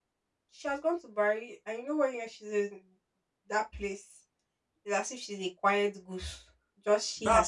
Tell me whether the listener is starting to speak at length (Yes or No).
Yes